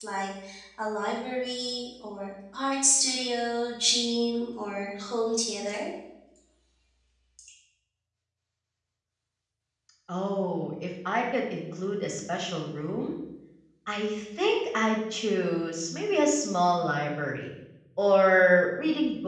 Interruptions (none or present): none